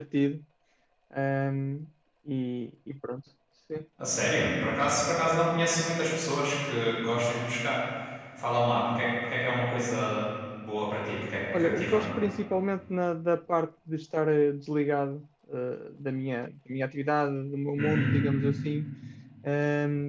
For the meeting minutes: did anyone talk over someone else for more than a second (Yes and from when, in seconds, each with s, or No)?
No